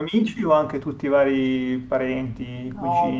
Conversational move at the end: taking over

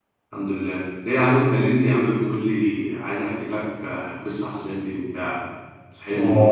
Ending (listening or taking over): taking over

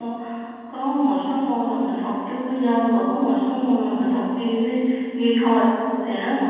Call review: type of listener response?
listening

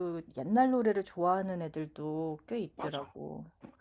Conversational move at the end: taking over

